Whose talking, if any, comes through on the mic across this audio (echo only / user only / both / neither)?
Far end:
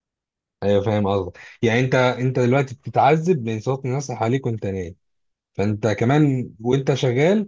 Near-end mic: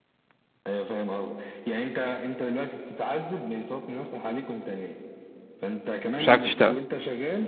both